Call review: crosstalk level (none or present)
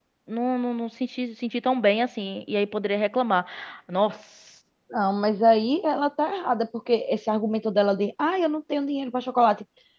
none